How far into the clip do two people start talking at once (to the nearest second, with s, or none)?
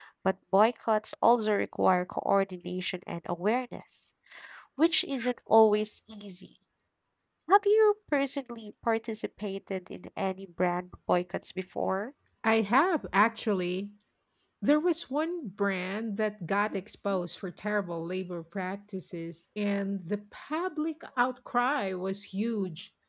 none